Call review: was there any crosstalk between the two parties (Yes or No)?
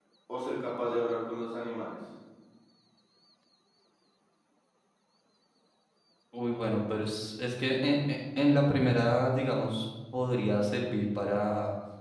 No